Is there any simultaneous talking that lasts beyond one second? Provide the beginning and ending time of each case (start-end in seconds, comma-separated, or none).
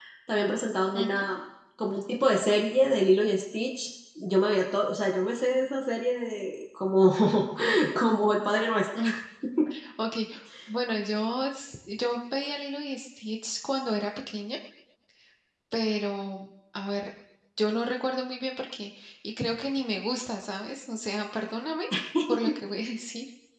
none